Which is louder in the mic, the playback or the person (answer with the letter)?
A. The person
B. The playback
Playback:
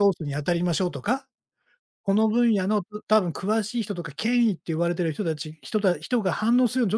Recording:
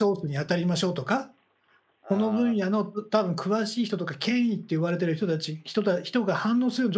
B